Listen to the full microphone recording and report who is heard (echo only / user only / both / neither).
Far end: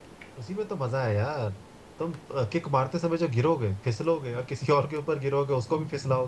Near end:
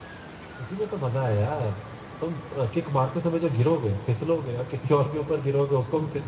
echo only